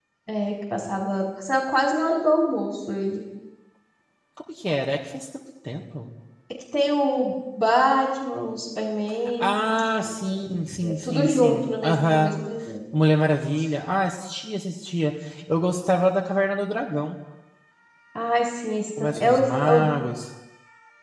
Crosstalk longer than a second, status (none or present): present